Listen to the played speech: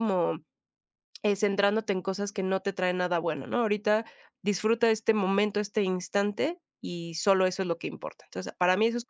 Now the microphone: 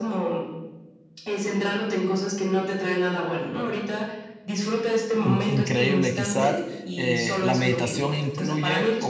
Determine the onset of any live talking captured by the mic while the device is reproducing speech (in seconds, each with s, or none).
5.1 s